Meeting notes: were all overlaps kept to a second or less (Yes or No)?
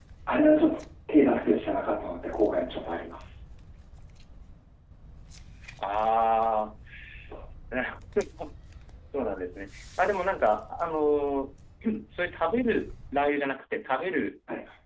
Yes